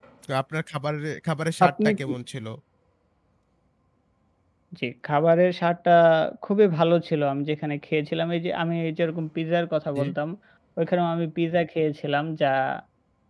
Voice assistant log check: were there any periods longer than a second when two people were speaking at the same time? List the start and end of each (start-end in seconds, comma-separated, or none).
none